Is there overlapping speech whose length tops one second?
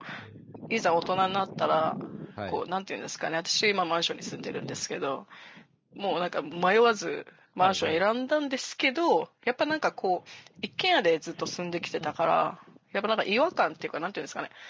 No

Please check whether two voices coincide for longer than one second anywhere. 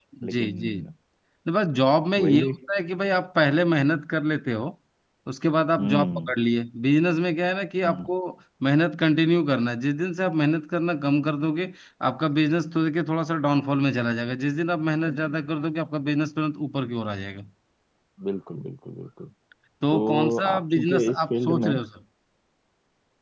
Yes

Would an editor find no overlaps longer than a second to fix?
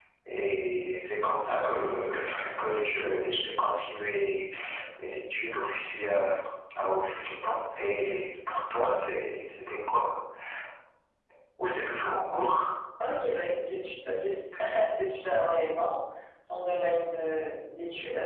Yes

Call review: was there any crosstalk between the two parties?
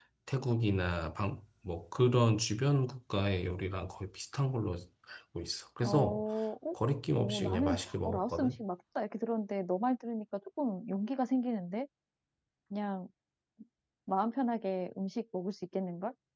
Yes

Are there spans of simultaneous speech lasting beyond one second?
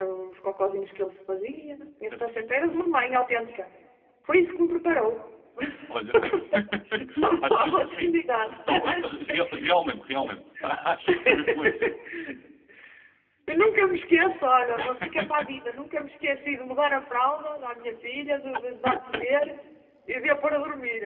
Yes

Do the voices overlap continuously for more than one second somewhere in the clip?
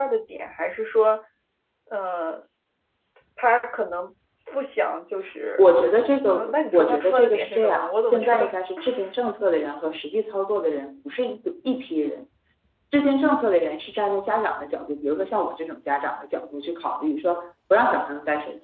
Yes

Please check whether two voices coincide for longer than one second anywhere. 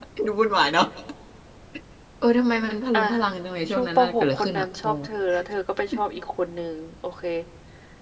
Yes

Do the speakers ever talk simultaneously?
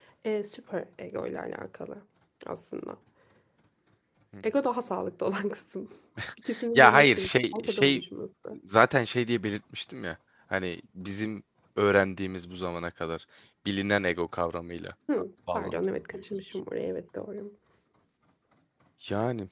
Yes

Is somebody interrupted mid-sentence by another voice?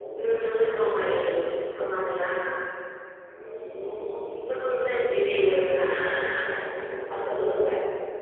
Yes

